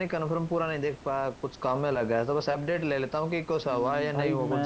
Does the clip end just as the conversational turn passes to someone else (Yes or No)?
Yes